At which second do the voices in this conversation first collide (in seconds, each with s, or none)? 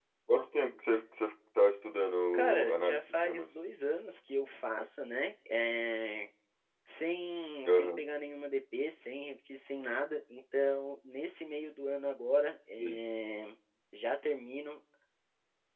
2.3 s